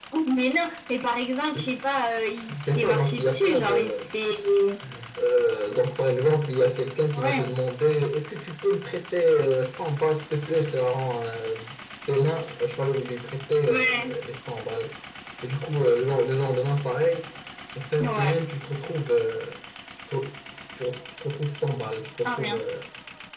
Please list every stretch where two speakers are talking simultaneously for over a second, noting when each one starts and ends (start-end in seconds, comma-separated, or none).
2.6-4.0